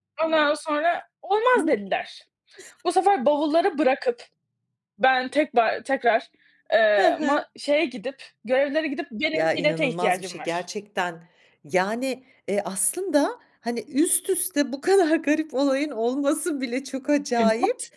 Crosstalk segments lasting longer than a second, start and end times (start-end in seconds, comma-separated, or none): 9.3-10.6